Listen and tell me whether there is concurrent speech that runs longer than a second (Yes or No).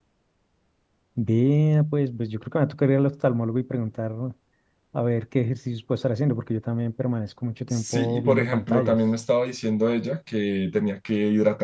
Yes